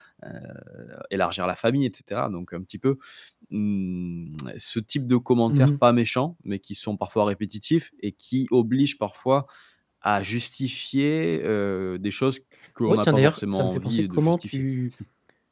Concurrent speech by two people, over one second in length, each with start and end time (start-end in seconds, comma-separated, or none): 12.9-14.6